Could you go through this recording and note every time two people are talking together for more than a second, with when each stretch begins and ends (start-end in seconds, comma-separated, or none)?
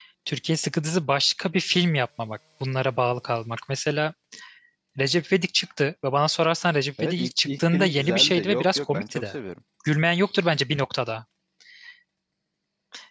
7.0-9.3